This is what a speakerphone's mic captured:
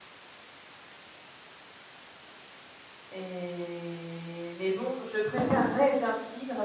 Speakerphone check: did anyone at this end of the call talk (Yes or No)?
Yes